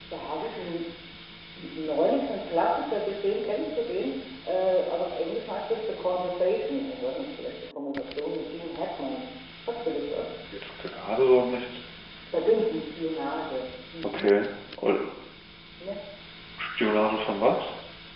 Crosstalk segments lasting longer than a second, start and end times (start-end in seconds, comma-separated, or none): none